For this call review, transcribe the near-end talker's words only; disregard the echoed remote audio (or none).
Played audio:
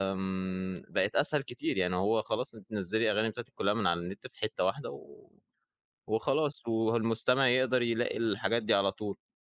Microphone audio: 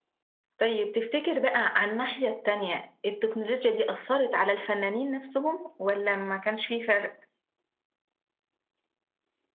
طيب تفتكر بقى على الناحية التانية، التكنولوجيا دي أثّرت على الفنانين نَفْسهم والّا ما كانش في فرق؟